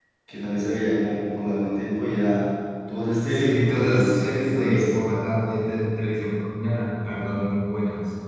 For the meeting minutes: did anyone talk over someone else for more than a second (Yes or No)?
Yes